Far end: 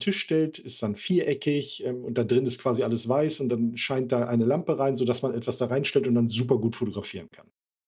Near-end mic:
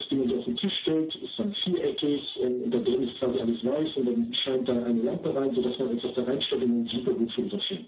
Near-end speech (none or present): none